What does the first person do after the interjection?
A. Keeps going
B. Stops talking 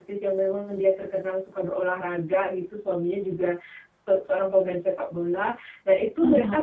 A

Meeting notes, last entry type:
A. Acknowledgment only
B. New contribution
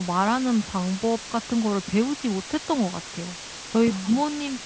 A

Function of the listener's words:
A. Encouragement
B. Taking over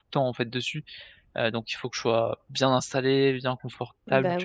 B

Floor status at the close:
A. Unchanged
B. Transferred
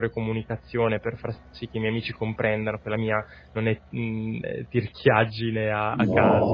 B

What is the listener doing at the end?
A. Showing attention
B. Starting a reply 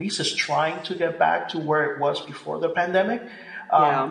A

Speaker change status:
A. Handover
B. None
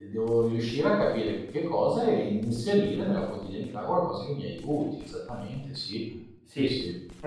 A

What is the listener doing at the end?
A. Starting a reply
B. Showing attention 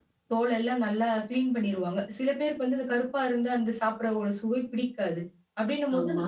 B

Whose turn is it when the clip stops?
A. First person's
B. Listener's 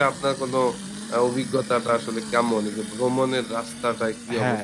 B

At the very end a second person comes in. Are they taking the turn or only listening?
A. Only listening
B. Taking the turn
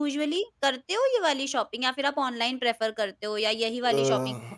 B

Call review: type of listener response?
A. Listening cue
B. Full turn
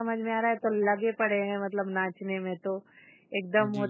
A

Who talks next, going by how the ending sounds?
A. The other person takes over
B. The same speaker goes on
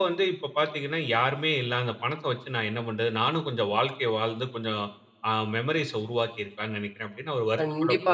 A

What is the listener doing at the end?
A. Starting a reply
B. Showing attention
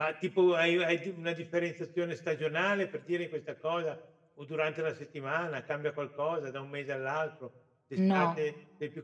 B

